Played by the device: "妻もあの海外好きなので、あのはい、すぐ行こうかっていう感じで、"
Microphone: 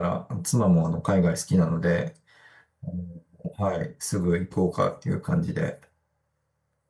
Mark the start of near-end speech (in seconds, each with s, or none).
none